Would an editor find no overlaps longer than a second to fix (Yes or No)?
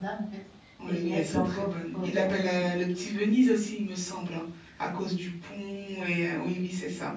No